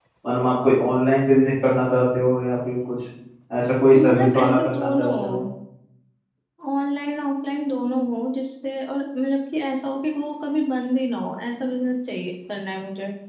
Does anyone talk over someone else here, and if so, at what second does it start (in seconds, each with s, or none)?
4.0 s